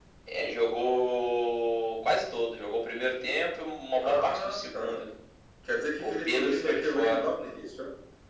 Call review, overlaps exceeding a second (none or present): present